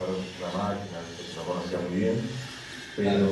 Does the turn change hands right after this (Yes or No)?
No